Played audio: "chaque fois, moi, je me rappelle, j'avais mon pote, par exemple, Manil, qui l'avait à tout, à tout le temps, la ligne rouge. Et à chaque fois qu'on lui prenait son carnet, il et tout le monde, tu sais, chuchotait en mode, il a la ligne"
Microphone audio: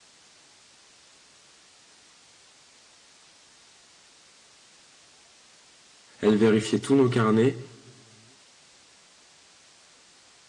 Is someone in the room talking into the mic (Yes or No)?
Yes